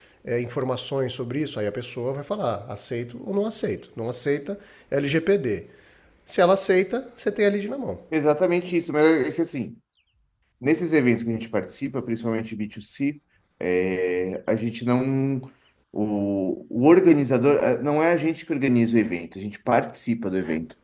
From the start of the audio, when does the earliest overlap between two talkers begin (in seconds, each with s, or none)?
none